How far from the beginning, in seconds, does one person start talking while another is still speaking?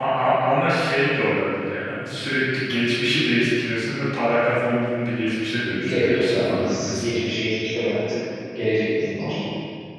6 s

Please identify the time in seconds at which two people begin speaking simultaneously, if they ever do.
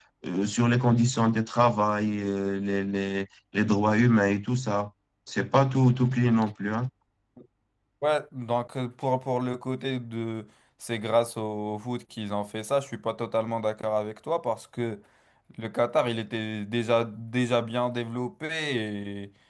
none

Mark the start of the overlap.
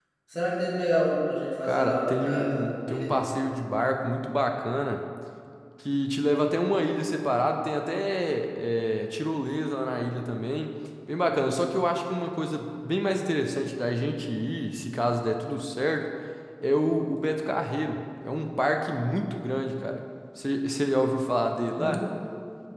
2 s

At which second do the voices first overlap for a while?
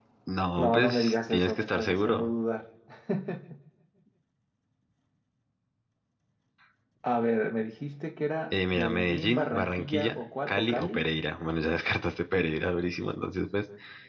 1 s

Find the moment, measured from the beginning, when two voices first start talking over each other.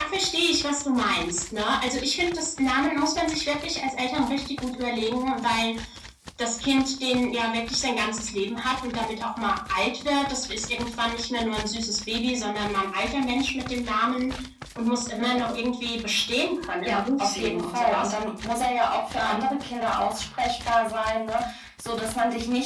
17 s

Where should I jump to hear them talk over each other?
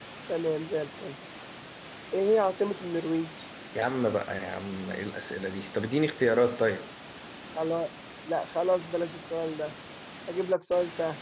none

